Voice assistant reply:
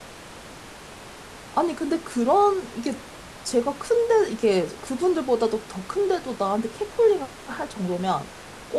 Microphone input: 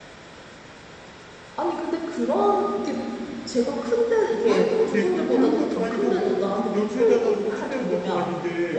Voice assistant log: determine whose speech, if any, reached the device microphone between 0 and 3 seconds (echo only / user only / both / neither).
echo only